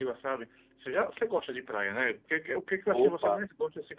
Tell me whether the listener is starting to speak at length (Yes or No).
No